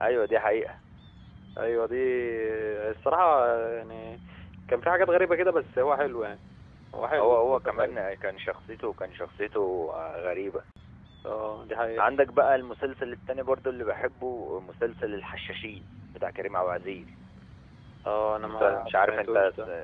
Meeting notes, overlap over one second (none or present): present